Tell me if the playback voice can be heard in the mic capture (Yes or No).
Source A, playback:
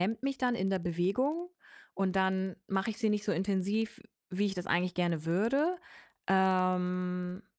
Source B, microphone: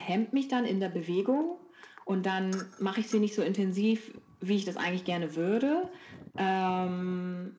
Yes